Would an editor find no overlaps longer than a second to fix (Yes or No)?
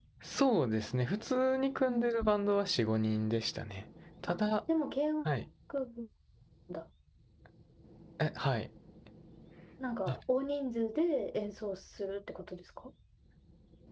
Yes